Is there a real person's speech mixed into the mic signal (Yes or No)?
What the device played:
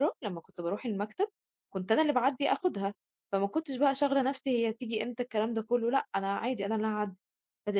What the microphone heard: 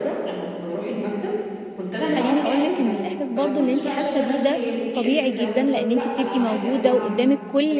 Yes